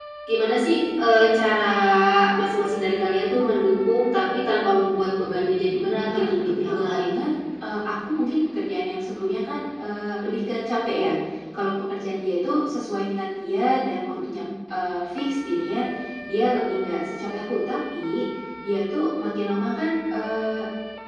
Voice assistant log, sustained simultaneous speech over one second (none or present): present